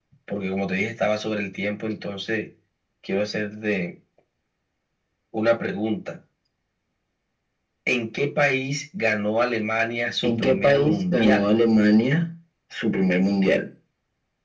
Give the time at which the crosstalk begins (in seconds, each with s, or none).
10.2 s